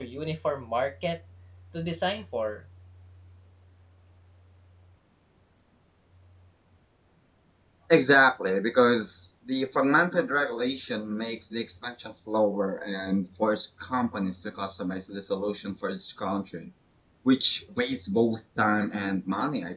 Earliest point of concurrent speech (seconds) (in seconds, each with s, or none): none